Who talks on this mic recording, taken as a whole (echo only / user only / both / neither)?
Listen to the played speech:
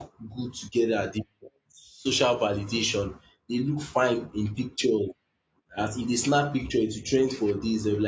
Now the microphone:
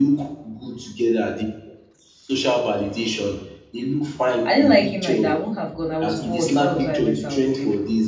both